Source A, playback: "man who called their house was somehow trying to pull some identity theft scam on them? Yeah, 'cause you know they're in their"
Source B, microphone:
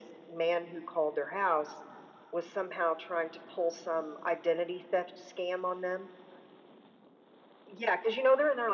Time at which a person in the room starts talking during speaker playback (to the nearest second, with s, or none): none